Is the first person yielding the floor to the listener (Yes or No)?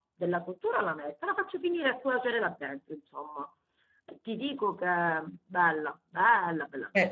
Yes